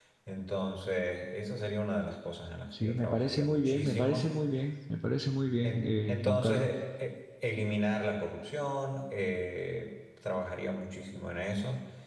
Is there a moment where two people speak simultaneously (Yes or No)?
Yes